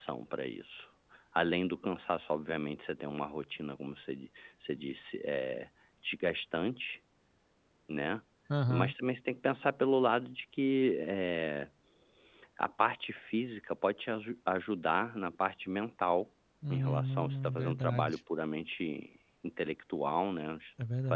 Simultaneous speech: Yes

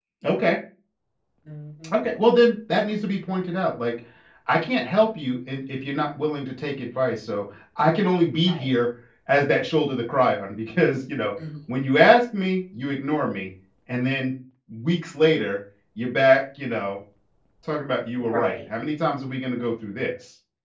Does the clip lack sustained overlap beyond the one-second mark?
Yes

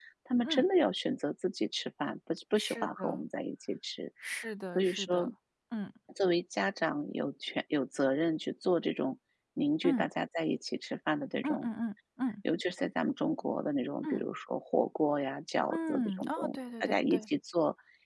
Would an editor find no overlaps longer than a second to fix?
No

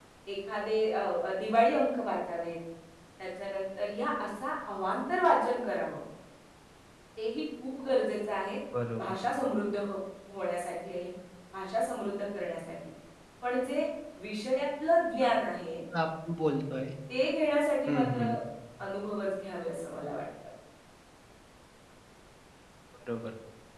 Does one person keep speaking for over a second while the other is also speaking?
No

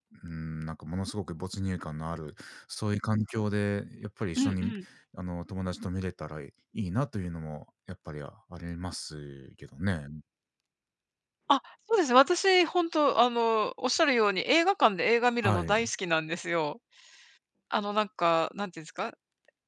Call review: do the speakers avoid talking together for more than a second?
Yes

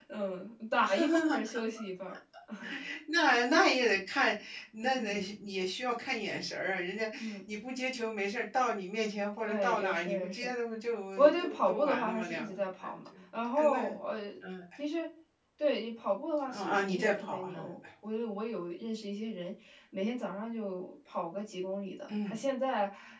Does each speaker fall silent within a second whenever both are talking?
No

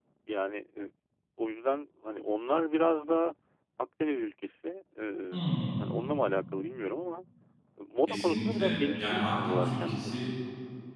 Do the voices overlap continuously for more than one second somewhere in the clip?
Yes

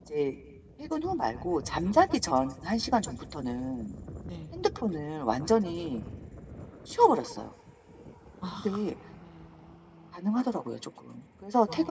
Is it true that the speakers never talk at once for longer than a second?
Yes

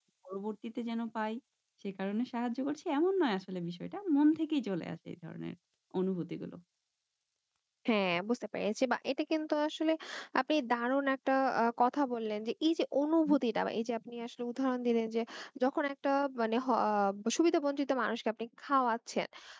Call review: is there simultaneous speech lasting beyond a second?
No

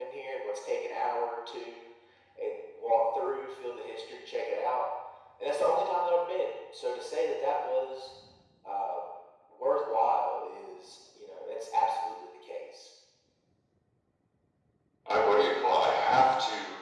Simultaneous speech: No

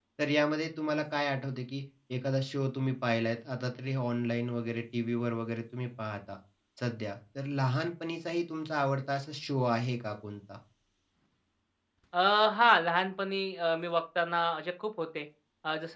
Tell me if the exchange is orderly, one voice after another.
Yes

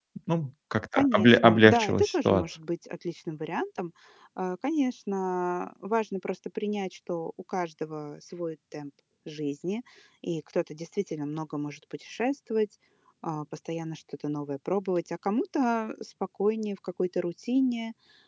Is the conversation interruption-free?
No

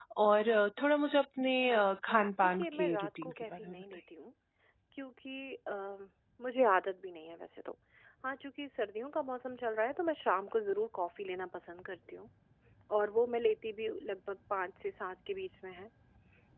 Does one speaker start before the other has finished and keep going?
Yes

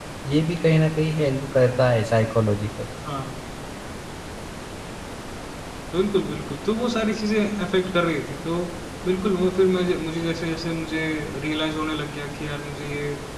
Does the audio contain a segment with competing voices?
No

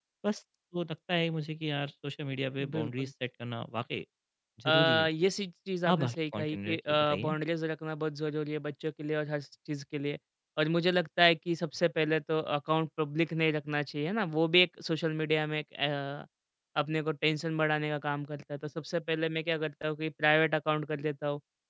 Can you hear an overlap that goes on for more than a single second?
Yes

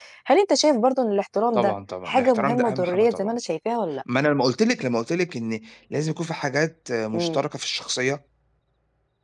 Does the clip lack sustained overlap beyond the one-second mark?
No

